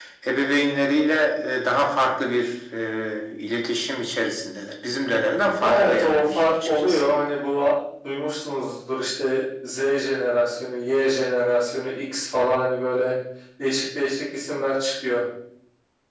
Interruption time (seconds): 5.6 s

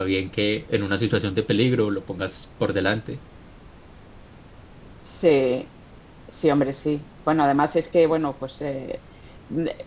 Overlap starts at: none

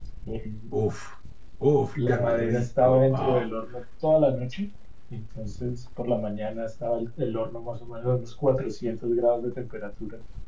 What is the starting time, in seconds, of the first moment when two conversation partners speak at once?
1.9 s

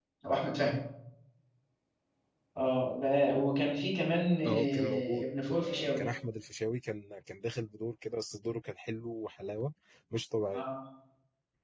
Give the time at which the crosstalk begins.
4.4 s

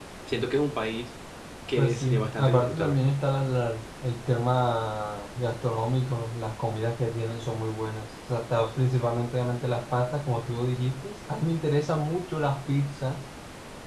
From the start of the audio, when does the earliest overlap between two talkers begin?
1.8 s

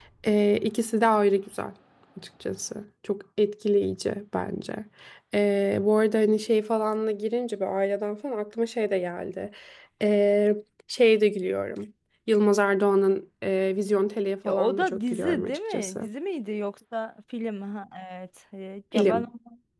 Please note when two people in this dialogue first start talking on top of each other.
14.4 s

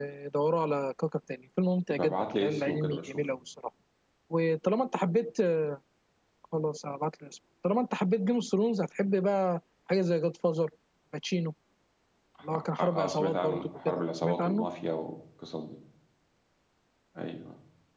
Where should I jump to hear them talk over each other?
1.9 s

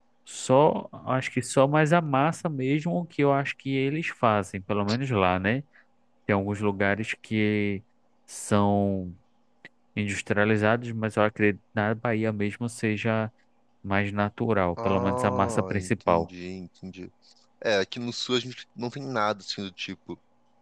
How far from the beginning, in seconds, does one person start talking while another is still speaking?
14.8 s

